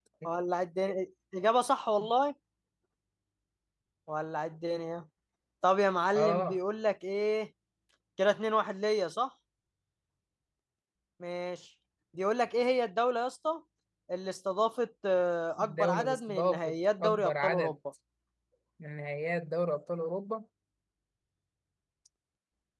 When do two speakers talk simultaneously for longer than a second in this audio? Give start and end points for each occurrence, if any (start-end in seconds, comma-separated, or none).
15.6-17.7